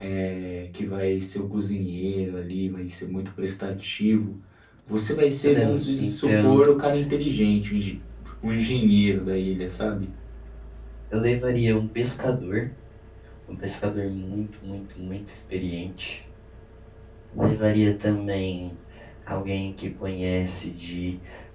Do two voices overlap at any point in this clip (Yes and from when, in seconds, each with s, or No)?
Yes, from 5.4 s